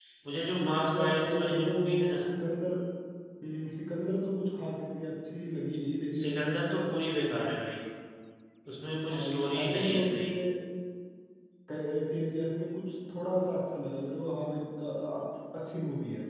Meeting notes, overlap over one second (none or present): present